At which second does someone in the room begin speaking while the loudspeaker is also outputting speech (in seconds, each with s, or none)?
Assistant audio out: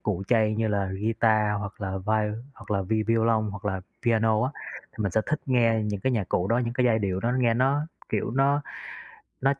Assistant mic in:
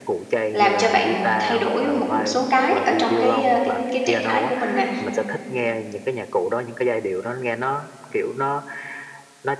0.5 s